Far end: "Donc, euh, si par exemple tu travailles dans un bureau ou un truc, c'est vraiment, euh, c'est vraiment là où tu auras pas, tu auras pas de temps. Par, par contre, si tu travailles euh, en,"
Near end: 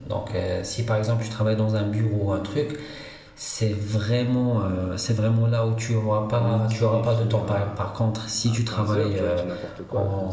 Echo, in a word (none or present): present